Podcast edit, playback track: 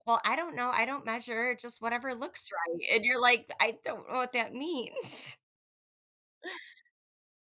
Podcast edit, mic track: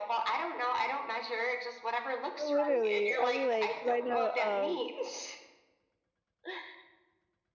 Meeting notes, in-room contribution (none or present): present